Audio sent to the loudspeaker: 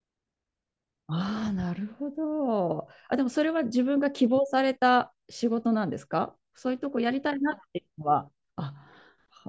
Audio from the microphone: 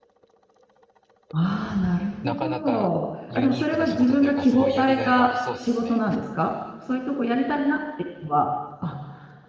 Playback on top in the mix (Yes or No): Yes